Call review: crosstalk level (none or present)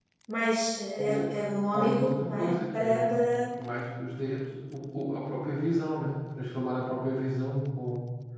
present